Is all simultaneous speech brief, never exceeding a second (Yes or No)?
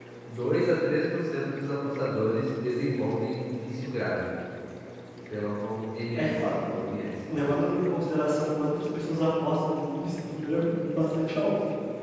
Yes